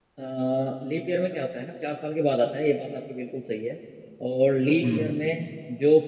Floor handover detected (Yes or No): No